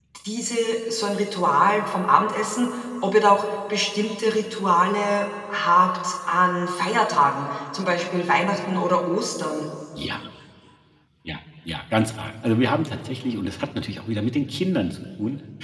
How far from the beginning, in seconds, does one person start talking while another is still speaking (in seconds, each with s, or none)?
none